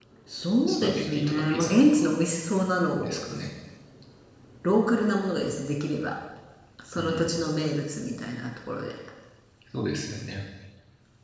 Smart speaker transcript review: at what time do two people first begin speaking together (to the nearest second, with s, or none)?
1 s